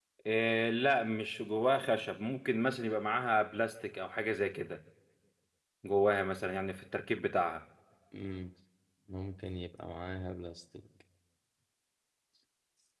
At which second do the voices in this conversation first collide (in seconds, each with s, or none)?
none